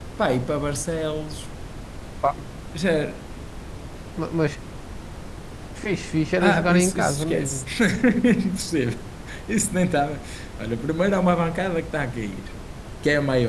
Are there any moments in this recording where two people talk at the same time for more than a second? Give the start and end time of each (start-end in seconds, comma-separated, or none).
6.4-7.7